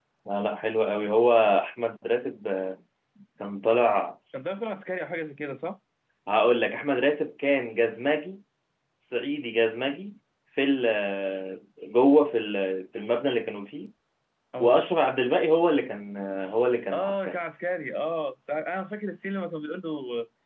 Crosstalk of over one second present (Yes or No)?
No